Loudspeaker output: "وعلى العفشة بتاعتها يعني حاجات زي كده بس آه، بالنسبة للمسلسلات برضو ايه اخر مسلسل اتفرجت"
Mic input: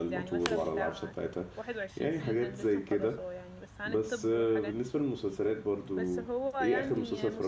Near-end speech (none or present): present